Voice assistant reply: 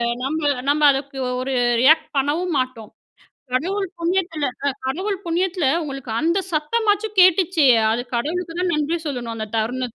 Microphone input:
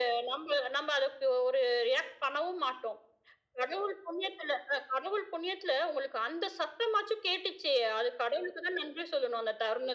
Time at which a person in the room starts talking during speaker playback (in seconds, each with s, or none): none